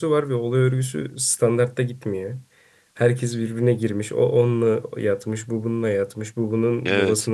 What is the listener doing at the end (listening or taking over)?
listening